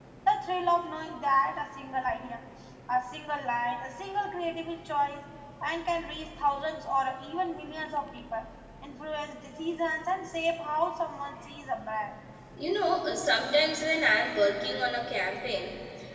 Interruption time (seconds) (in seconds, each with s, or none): none